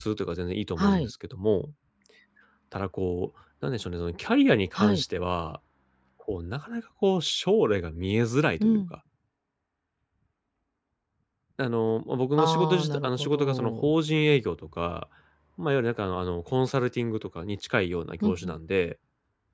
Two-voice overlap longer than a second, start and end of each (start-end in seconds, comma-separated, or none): 12.3-13.9